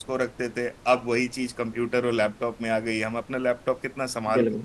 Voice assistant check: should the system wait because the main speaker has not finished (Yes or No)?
Yes